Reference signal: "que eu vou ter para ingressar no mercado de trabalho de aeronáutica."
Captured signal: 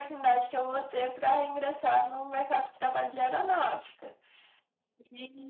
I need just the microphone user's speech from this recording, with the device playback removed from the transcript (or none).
none